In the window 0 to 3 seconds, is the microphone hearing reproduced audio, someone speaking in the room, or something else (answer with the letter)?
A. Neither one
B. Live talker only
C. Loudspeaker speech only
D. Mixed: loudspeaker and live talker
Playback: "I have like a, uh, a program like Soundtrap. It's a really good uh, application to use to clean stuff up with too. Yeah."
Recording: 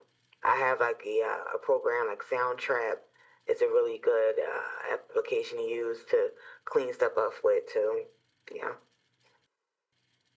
C